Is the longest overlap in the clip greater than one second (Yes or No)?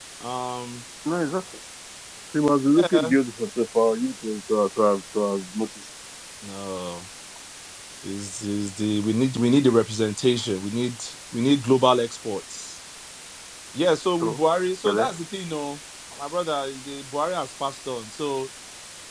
No